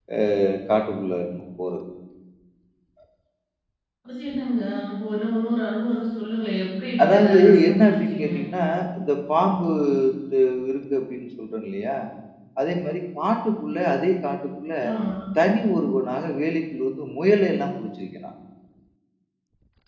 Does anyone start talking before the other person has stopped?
Yes, from 7.0 s

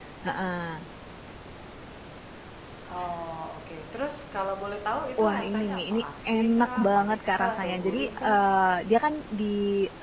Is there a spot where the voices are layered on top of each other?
Yes, from 5.2 s

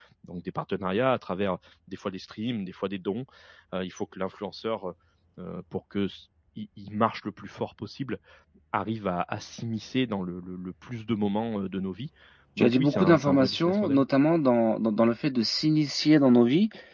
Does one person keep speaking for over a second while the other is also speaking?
Yes, from 12.6 s

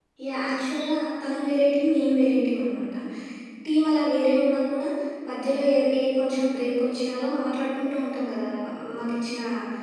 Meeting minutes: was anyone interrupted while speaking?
No

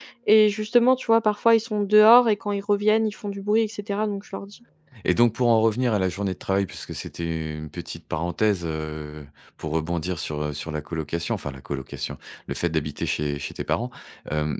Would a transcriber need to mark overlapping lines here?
No

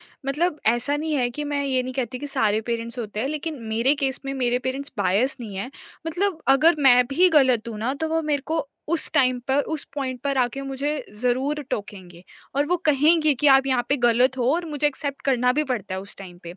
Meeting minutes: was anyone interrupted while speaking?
No

